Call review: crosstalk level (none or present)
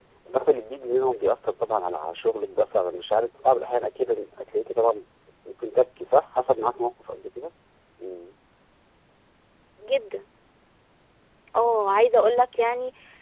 none